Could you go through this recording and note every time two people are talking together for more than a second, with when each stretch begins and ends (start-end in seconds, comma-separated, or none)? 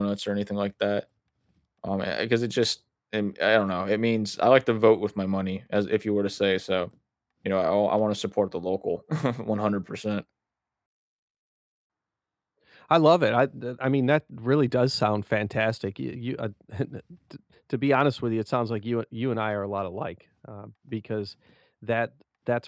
none